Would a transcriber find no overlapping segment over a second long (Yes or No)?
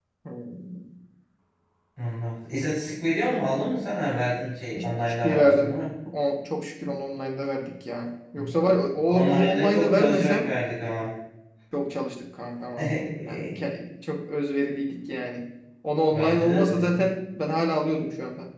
No